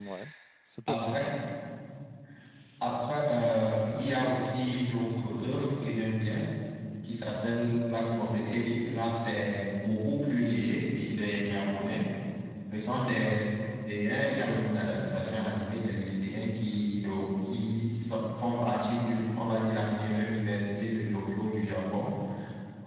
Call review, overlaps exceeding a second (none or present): none